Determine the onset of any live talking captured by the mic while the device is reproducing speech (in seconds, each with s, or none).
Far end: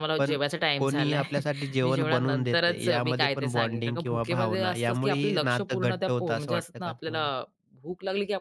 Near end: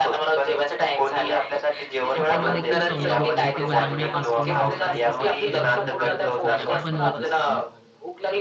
2.1 s